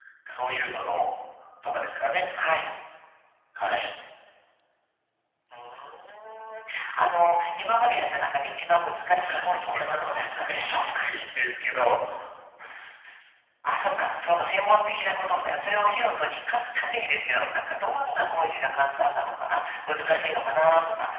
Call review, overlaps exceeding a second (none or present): present